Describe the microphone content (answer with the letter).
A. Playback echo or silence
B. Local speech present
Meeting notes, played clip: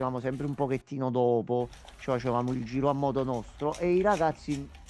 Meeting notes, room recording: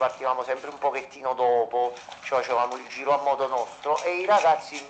A